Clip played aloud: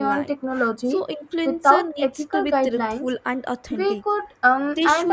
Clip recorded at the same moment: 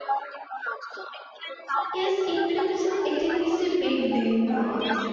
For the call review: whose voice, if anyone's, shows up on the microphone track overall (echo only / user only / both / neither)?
both